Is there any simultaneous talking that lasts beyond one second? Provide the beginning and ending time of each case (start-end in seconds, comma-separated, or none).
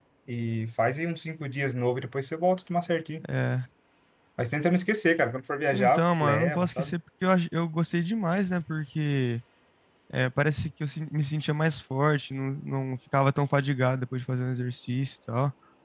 5.7-6.9